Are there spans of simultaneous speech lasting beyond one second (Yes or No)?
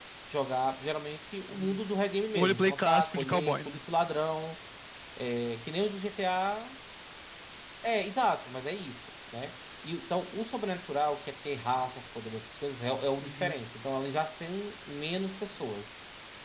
Yes